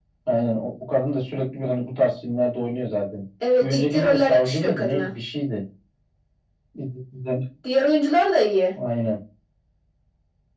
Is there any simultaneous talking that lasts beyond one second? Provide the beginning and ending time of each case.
3.6-5.1

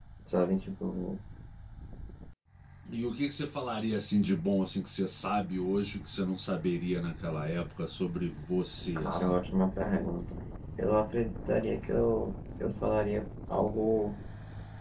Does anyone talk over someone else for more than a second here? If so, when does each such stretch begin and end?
none

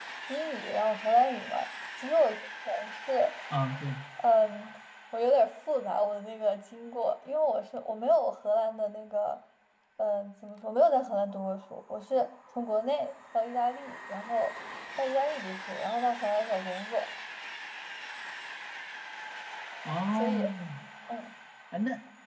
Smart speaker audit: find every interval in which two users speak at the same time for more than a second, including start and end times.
none

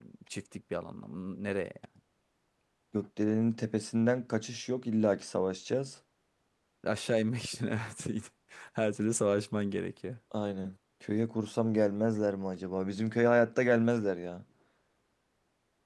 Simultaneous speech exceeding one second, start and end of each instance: none

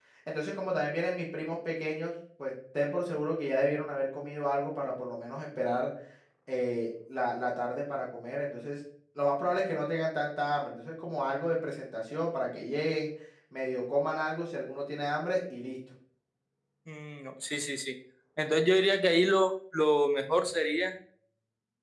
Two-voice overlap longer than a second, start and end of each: none

